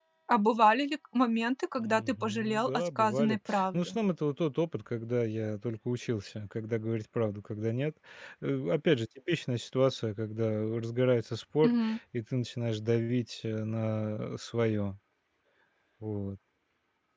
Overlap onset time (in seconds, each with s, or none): 1.8 s